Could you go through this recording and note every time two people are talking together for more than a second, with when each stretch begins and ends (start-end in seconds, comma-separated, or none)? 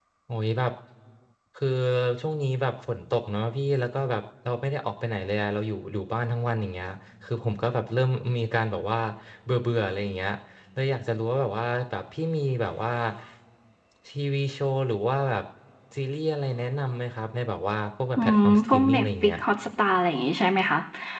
18.2-19.4